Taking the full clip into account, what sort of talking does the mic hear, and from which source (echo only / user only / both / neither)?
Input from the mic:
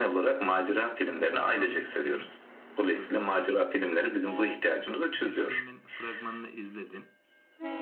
both